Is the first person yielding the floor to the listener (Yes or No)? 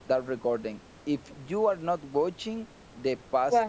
No